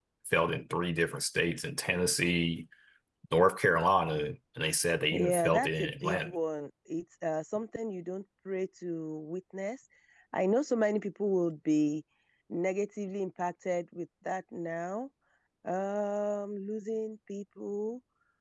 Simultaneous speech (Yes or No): Yes